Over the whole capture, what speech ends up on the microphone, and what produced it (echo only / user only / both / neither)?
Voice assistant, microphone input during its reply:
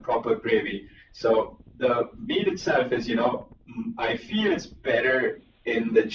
echo only